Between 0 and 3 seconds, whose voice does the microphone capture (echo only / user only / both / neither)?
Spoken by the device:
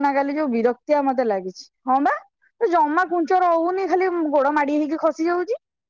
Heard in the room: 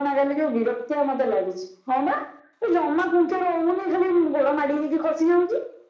echo only